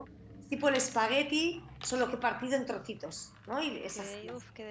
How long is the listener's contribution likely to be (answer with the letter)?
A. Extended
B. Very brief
A